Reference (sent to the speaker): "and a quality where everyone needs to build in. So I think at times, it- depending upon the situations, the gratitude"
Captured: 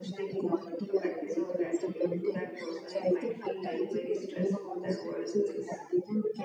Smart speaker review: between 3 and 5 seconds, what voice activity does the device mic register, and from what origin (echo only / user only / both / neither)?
both